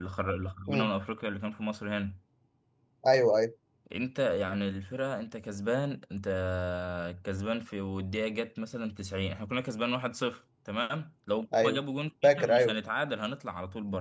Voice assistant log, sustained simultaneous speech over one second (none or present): none